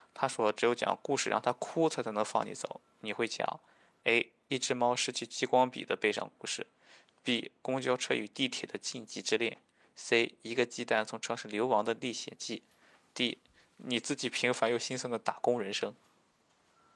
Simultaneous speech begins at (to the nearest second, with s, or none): none